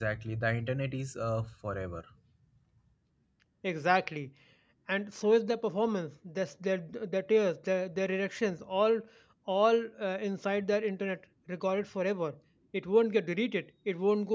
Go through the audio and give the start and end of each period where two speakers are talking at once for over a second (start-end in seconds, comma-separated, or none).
none